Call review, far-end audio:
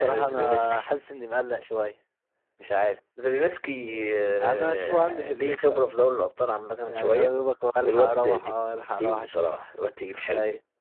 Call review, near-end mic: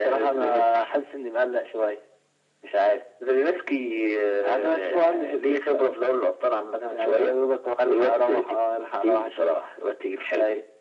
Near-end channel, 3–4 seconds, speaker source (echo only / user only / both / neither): echo only